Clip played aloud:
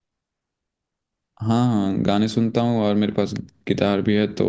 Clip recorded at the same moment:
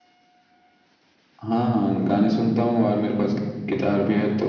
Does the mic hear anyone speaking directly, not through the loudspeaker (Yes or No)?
No